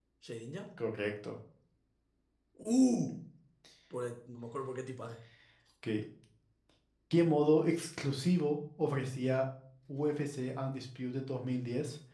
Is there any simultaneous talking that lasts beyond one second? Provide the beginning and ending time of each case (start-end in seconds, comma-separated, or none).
none